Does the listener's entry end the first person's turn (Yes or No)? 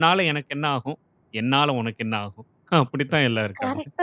Yes